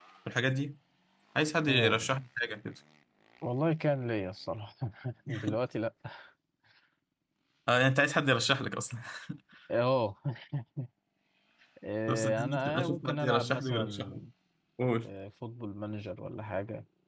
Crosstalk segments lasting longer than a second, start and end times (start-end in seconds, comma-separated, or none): 12.1-14.2